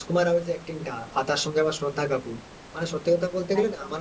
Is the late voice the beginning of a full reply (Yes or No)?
No